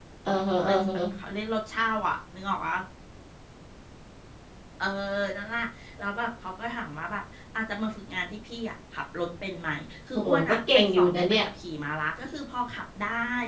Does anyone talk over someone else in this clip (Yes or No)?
Yes